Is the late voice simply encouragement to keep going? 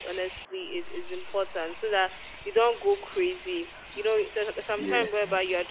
Yes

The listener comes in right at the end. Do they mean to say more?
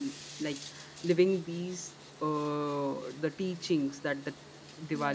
No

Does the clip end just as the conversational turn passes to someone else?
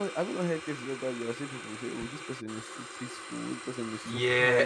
Yes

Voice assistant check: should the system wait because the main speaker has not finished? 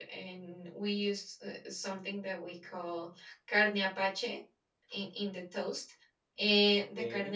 Yes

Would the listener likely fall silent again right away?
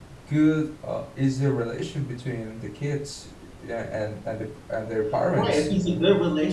No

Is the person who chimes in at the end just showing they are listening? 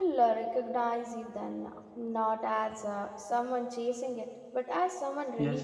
No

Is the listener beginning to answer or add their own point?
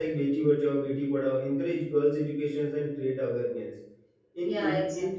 No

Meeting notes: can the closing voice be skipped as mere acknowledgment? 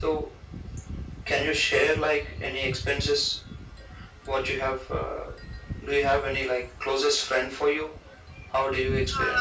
No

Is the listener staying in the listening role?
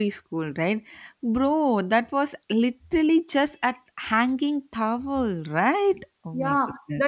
No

